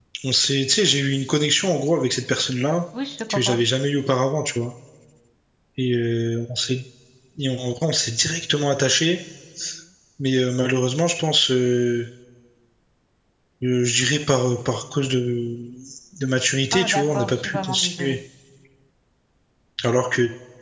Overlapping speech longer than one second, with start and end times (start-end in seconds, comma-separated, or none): 16.7-18.2